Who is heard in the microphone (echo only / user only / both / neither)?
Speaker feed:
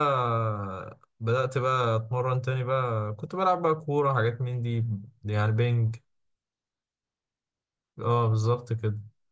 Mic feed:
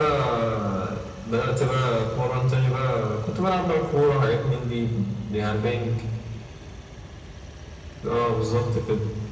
echo only